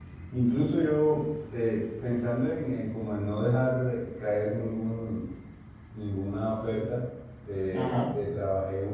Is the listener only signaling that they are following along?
Yes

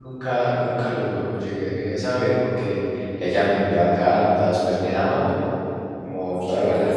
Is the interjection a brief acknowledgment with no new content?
No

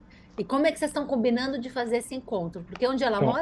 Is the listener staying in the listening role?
No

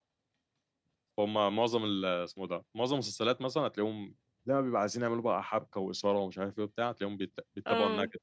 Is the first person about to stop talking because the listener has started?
No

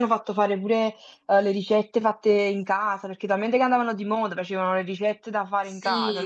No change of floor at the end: No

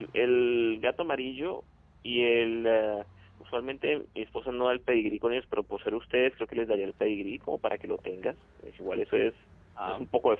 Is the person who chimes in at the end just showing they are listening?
Yes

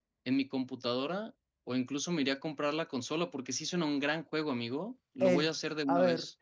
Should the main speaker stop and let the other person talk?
Yes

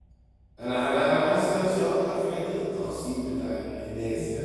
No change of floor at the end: Yes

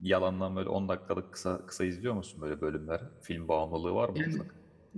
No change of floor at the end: No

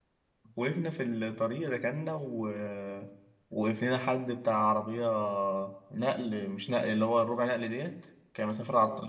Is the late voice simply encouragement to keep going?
Yes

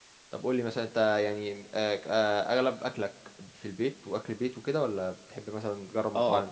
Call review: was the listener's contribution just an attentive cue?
No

